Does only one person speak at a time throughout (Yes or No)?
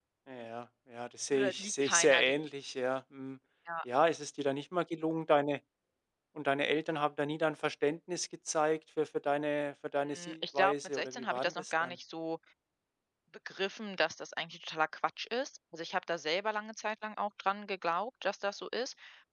No